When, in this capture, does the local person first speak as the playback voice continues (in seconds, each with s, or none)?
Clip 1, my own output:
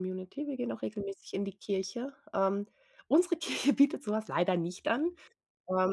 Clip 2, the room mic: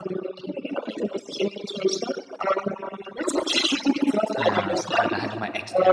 4.4 s